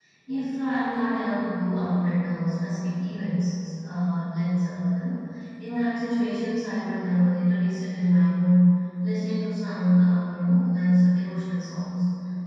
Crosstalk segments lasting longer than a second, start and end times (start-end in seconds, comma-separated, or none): none